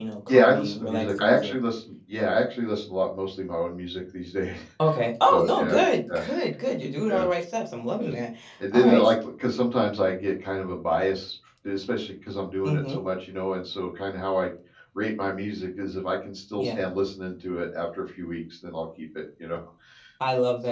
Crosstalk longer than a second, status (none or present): present